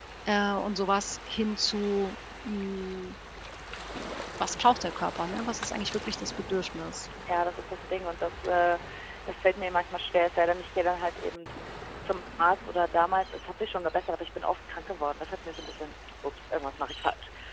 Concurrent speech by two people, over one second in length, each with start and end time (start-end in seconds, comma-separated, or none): none